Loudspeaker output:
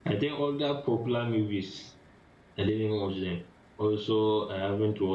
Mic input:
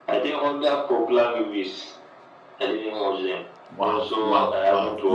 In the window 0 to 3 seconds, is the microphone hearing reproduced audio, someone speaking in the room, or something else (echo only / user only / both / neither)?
echo only